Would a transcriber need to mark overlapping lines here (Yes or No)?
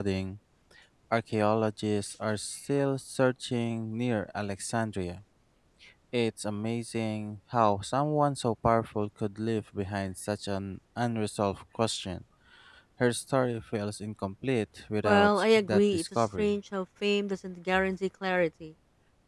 Yes